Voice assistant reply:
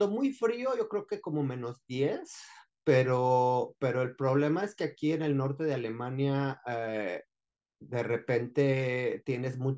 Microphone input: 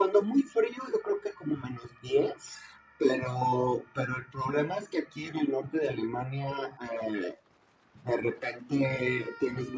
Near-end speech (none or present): none